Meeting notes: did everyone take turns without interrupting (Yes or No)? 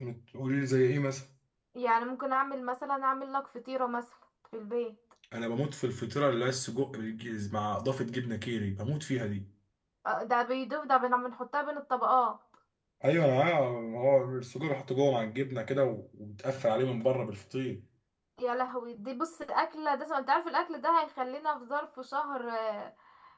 Yes